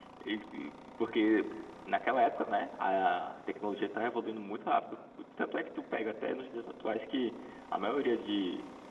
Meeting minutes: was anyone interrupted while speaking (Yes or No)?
No